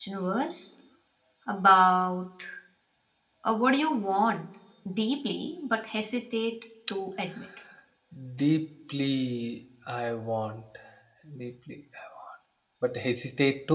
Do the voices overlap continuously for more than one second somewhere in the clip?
No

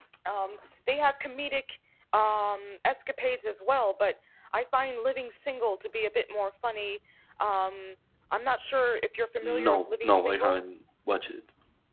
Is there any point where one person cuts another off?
Yes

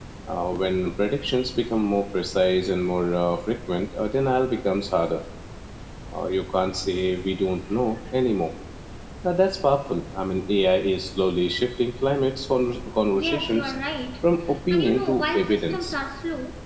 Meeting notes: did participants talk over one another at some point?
Yes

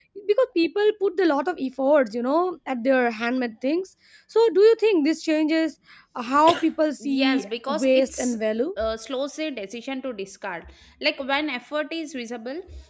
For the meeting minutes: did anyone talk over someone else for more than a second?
Yes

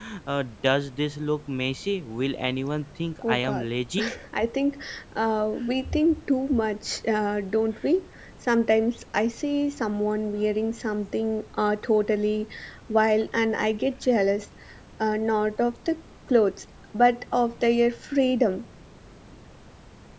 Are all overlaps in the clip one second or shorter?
Yes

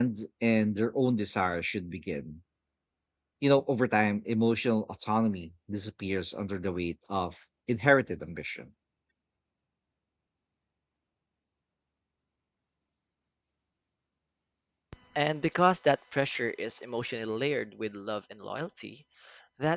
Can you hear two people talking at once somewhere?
No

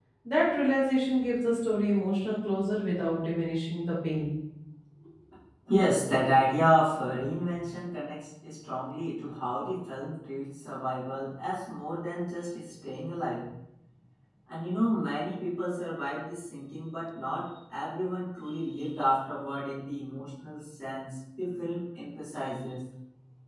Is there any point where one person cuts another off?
No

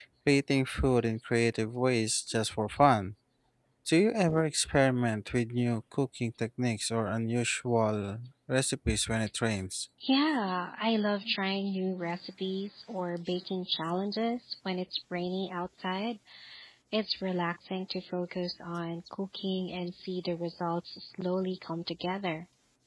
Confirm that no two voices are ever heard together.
Yes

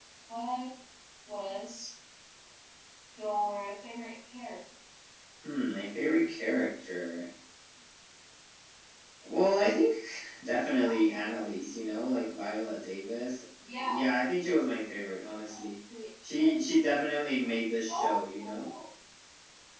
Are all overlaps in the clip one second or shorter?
Yes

